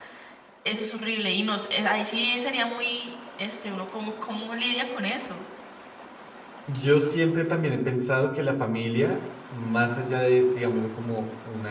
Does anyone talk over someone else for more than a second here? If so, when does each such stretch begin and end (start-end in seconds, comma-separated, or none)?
none